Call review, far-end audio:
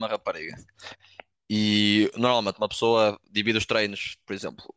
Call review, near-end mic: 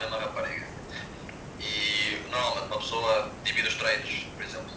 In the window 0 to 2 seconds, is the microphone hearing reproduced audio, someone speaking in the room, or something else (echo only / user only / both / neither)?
echo only